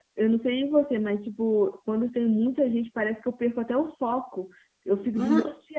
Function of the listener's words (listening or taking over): taking over